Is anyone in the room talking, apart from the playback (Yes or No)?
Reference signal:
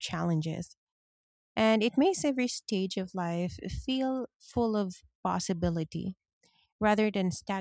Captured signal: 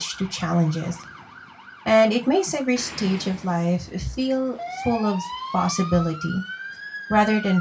No